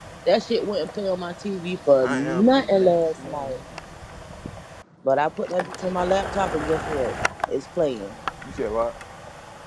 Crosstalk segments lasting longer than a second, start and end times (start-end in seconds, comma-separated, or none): 2.0-3.6